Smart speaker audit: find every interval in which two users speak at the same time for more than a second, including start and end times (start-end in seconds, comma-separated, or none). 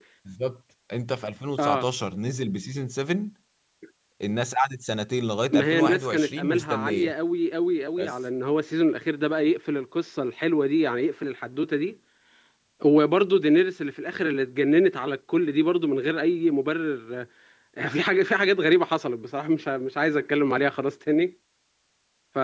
5.5-7.1